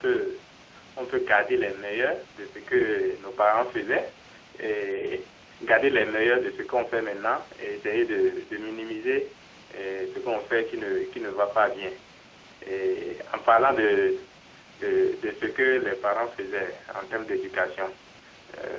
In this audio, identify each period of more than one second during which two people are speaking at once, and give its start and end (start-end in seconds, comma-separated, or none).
none